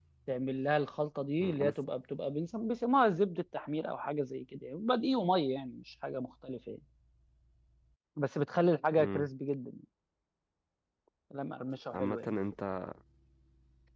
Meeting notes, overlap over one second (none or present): none